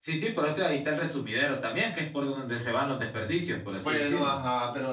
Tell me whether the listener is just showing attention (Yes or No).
No